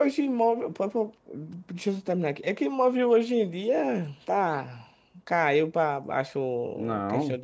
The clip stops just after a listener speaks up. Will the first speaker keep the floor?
Yes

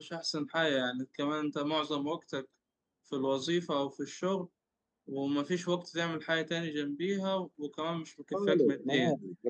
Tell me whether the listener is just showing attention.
No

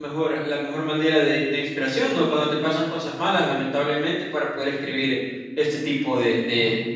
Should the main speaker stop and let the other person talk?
No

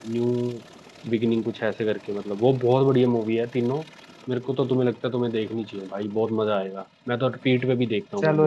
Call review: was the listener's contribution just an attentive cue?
No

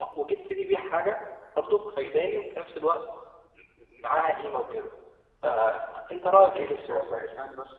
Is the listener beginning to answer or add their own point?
Yes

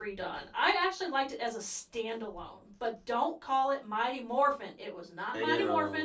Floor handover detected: No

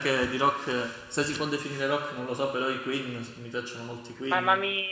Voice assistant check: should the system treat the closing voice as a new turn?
Yes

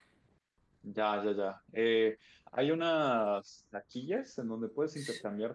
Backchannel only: Yes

